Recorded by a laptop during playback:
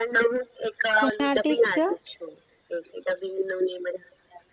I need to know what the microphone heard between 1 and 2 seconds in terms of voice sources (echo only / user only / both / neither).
both